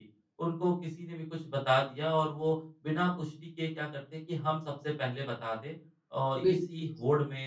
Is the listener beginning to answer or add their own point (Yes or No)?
No